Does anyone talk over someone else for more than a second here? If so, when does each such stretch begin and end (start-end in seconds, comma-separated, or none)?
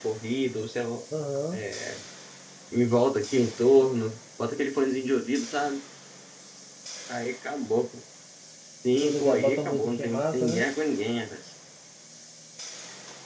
9.0-10.6